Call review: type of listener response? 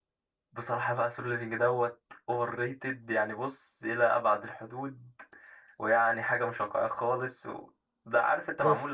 listening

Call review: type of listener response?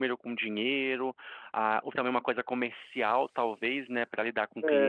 taking over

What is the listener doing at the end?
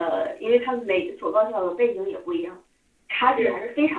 listening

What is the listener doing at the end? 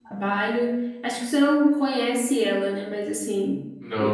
taking over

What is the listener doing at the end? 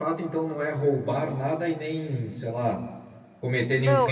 taking over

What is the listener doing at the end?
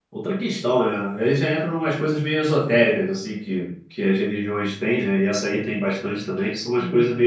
listening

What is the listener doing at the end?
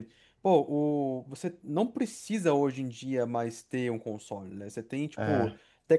listening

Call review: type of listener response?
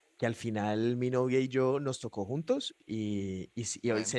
listening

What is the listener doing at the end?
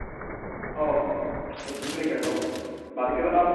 listening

